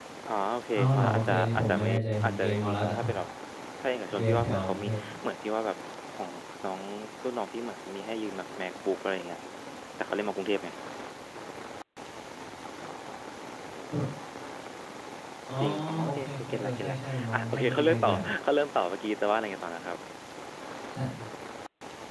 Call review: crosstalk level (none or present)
present